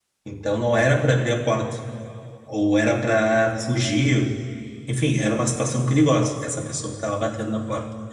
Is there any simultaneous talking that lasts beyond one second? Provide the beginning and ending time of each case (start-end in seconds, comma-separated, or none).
none